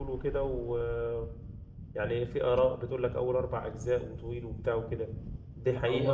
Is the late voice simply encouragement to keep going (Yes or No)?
No